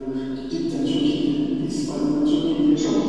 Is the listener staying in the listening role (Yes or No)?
Yes